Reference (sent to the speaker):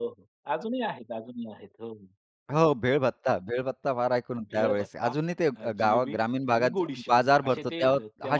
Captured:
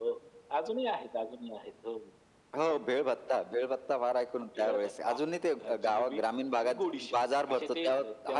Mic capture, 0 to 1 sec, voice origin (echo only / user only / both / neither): echo only